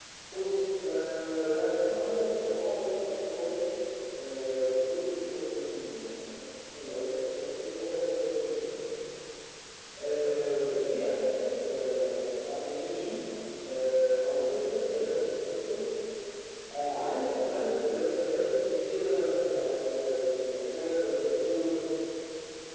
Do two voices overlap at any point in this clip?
No

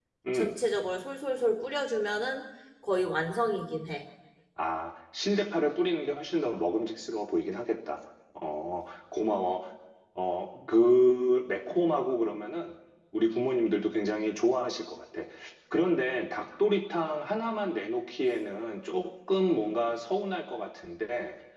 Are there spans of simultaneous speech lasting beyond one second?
No

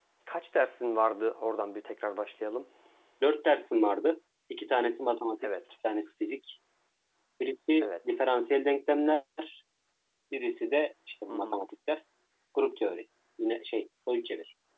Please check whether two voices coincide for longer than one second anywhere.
No

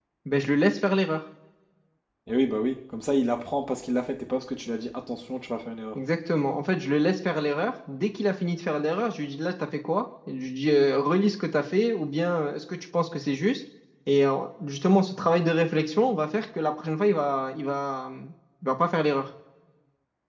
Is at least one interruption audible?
No

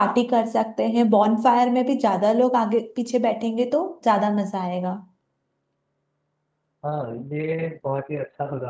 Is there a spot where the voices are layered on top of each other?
No

